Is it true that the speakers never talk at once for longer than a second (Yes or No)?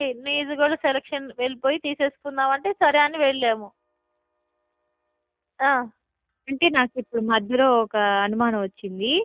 Yes